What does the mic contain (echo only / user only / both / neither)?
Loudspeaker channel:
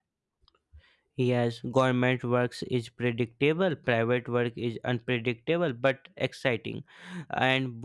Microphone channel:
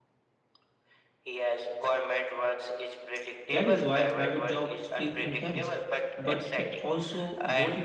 both